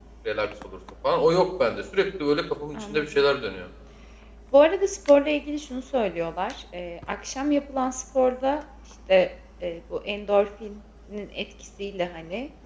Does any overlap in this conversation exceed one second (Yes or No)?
No